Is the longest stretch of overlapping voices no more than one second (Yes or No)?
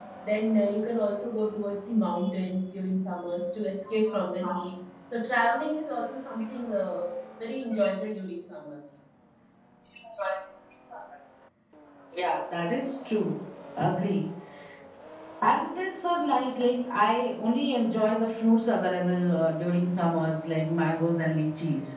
Yes